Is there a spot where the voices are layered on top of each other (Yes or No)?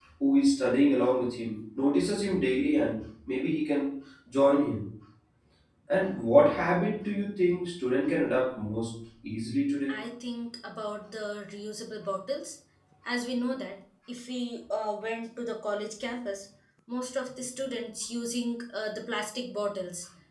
No